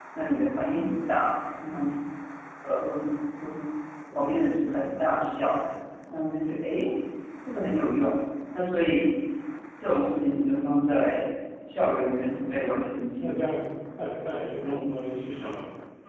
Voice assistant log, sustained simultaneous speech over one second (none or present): none